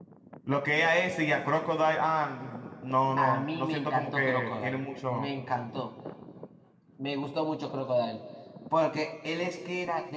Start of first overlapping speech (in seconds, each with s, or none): 3.2 s